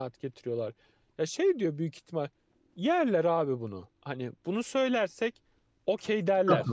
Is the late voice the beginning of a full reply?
Yes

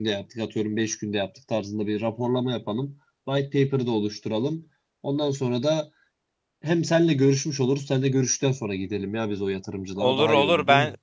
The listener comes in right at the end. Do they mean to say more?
Yes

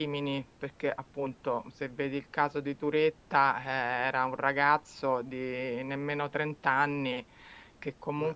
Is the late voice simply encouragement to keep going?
Yes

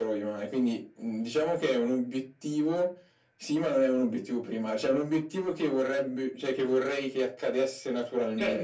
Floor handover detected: Yes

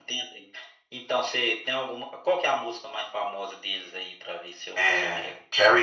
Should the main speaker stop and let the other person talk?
Yes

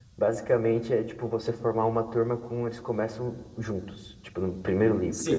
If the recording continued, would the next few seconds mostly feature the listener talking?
Yes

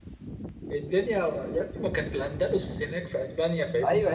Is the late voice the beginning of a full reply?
Yes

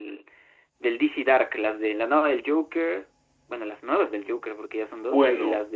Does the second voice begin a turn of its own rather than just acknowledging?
Yes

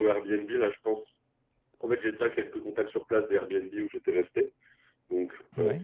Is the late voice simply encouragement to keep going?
Yes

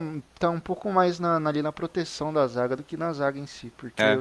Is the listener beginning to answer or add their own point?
No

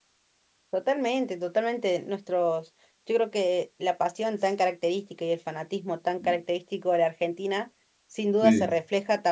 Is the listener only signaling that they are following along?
Yes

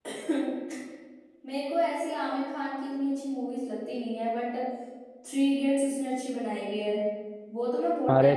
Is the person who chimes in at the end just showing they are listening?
No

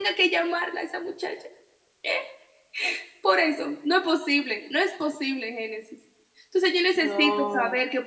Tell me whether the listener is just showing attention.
Yes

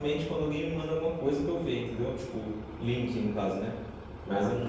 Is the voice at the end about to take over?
No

